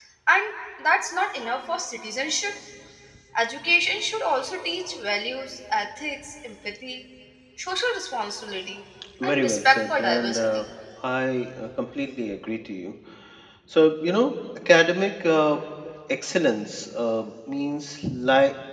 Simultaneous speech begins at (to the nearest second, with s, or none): 9 s